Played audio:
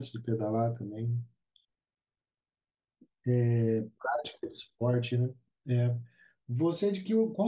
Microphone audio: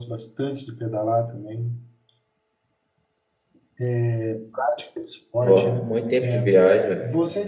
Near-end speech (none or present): present